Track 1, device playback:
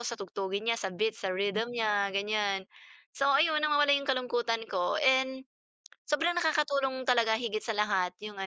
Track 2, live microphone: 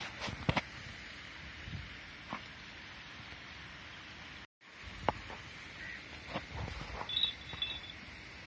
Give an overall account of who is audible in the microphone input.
neither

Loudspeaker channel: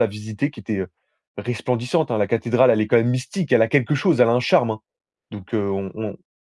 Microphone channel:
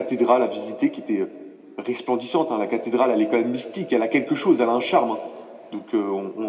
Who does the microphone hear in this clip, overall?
echo only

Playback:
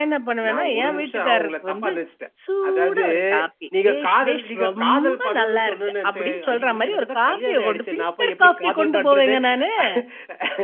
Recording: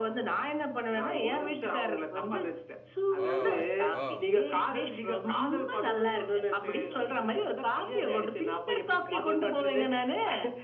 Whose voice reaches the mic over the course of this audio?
both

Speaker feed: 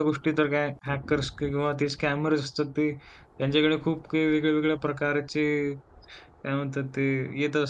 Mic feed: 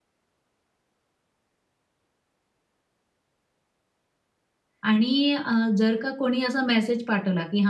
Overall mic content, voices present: user only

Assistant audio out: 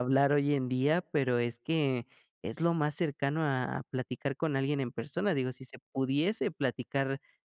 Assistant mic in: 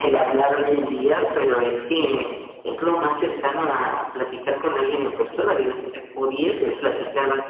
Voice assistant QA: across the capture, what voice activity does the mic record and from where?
echo only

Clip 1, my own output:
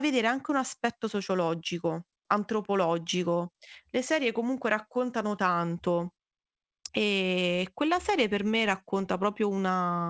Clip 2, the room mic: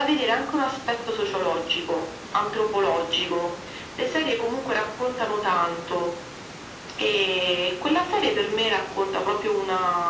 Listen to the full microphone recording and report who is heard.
echo only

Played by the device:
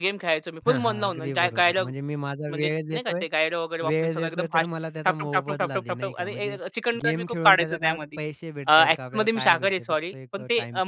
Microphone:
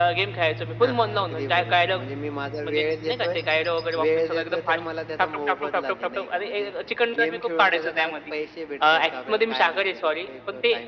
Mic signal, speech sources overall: echo only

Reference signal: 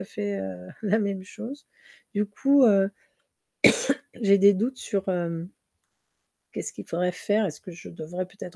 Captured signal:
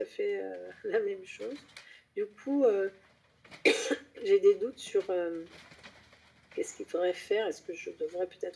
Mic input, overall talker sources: echo only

